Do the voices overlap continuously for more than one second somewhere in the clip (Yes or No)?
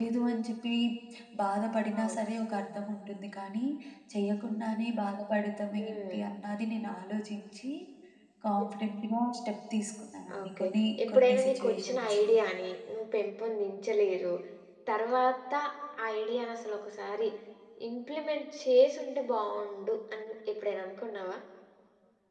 Yes